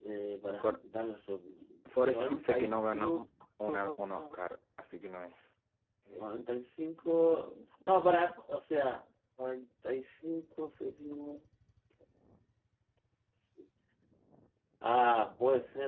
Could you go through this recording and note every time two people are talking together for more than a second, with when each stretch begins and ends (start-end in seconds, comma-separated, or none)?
2.0-3.2